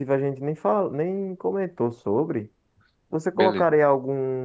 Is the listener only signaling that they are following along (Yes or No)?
Yes